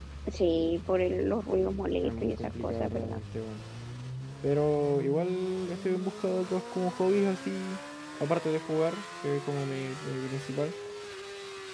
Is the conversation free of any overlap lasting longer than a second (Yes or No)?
No